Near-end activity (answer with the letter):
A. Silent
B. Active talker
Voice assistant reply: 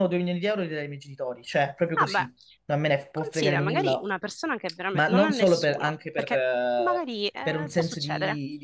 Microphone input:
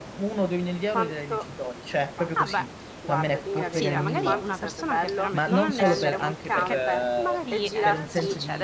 B